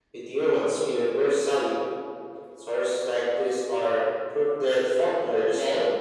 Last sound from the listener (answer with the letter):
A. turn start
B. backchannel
A